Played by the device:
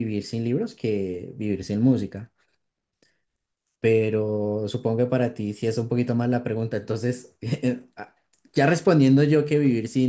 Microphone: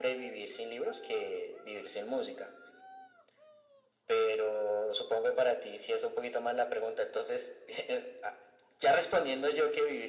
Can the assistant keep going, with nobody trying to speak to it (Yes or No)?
Yes